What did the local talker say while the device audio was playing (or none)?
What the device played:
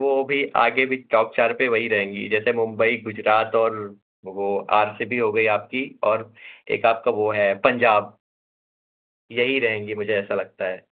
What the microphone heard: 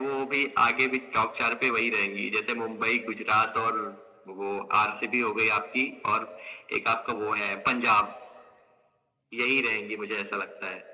none